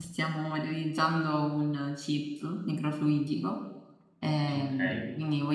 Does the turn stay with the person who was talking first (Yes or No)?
Yes